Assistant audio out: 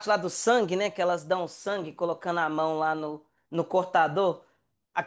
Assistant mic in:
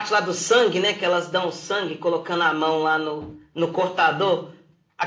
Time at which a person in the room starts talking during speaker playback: none

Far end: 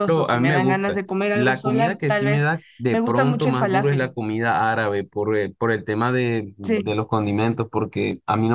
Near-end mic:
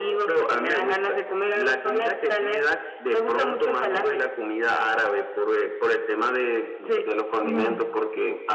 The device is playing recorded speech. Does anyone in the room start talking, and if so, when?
7.4 s

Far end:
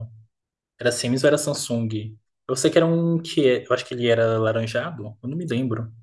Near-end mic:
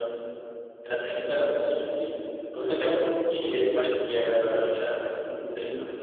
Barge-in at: none

